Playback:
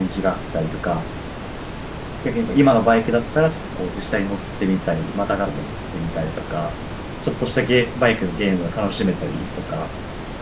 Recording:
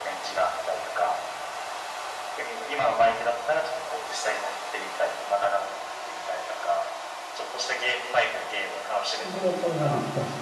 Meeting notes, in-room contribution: present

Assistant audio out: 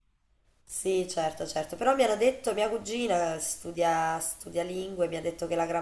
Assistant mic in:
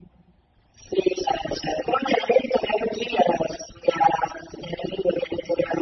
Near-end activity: none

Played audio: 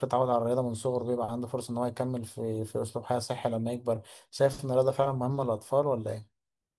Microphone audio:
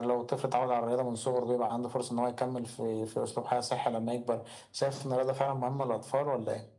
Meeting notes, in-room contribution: none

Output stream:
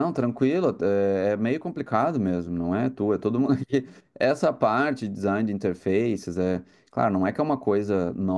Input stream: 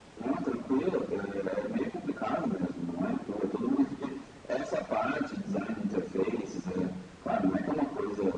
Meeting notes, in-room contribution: none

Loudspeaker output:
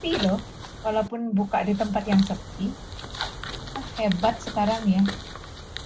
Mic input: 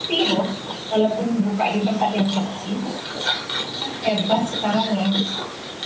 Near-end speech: none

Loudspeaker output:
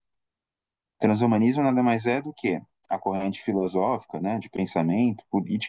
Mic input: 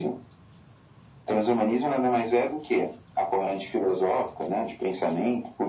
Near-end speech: none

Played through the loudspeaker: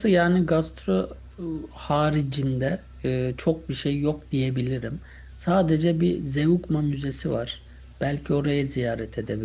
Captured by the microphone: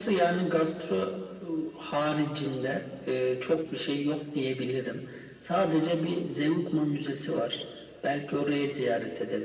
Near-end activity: none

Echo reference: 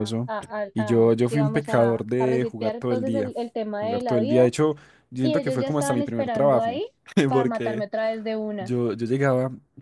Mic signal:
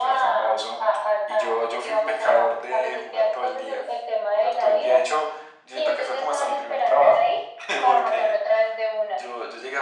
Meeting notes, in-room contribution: none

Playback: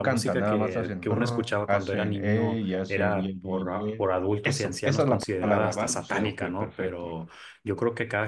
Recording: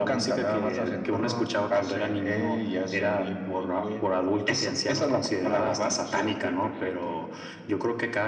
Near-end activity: none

